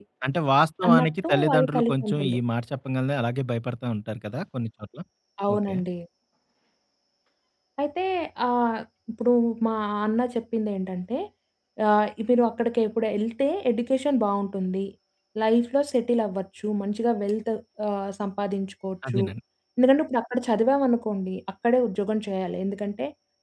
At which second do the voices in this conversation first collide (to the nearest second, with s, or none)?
1 s